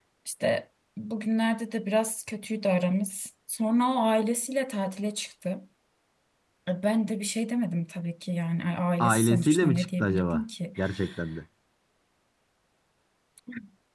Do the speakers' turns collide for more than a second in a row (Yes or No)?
Yes